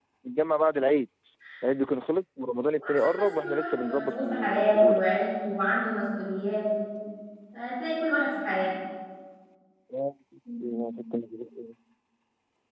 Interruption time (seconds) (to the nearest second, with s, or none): 3 s